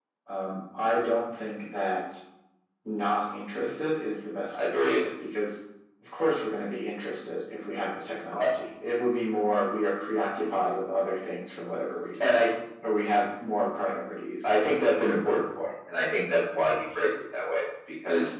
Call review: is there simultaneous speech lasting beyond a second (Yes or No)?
No